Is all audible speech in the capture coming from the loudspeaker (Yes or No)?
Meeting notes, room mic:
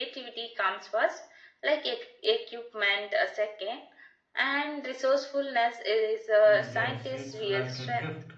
No